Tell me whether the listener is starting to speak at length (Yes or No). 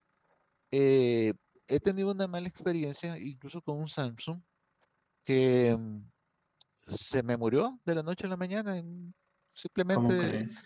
No